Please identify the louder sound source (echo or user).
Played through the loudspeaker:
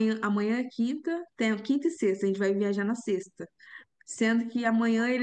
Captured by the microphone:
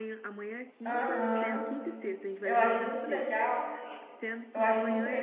user